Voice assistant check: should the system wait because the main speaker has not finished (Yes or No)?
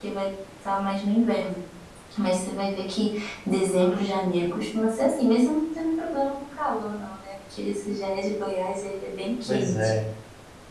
No